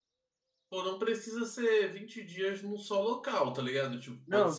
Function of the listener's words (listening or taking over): taking over